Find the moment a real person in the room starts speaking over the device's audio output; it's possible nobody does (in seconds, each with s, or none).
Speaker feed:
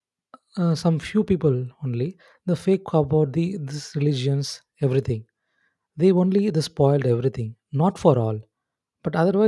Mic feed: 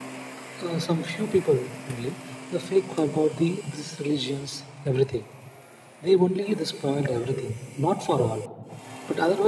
none